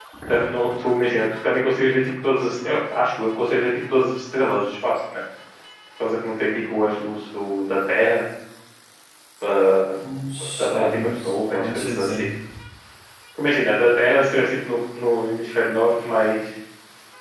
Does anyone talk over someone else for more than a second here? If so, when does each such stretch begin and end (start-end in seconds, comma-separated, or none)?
10.6-12.3